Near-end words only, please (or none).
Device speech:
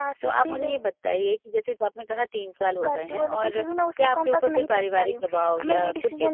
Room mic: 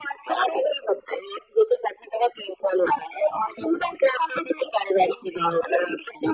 none